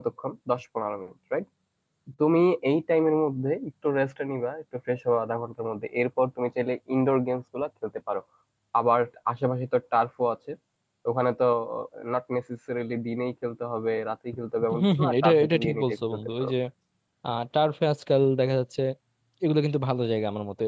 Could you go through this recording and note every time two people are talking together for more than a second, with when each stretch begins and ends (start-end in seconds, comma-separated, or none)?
14.8-16.5